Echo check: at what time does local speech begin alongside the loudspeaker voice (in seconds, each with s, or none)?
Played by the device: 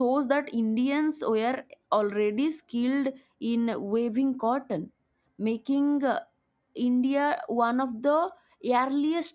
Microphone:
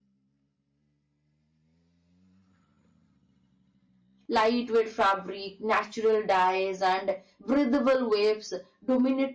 4.3 s